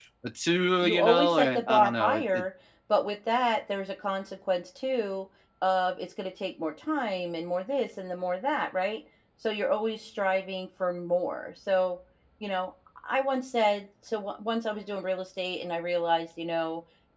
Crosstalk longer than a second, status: present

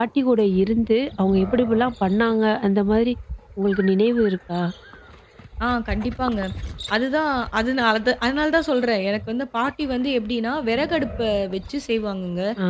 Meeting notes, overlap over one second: none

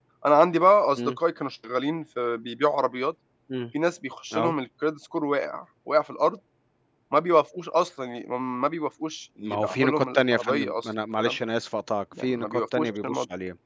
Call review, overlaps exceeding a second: present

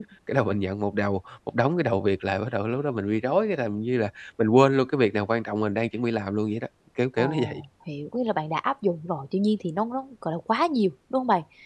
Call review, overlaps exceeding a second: none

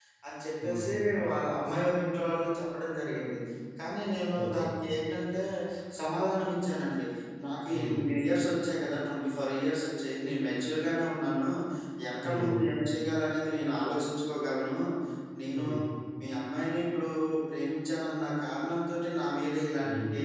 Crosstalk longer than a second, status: none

